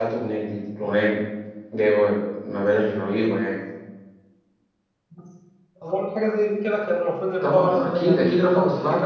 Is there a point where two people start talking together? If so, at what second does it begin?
7.4 s

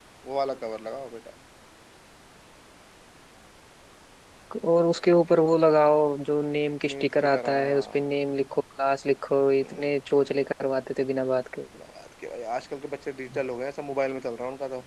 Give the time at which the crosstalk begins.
6.9 s

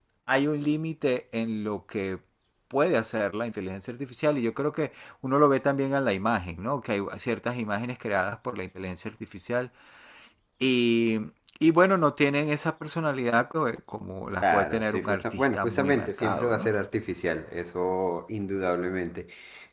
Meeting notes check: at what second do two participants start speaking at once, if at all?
14.4 s

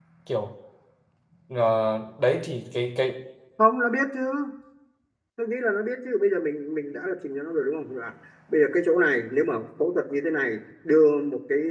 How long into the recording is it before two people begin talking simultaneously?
none

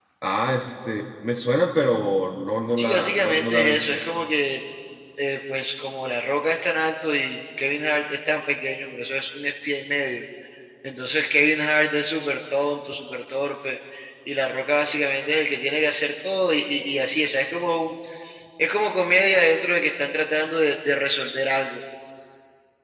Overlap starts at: 2.8 s

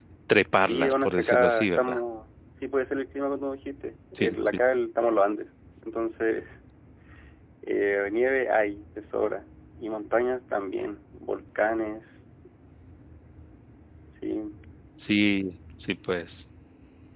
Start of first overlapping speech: 0.6 s

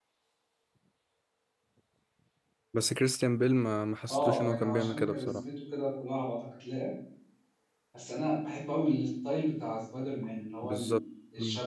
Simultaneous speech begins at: 4.1 s

